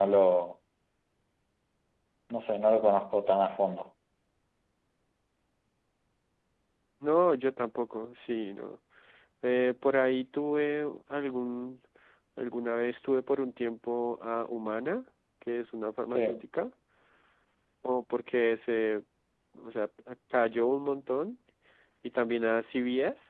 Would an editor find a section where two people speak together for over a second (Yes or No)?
No